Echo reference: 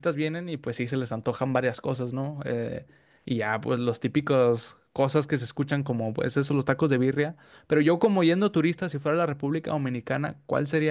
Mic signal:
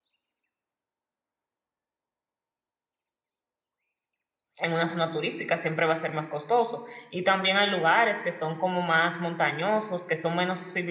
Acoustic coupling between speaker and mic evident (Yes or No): No